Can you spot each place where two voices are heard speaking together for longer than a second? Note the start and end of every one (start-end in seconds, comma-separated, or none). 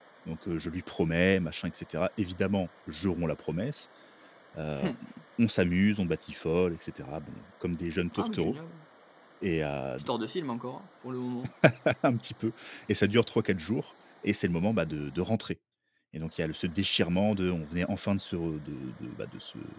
none